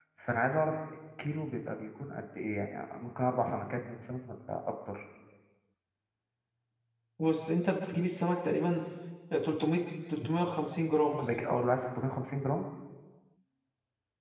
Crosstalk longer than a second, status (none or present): none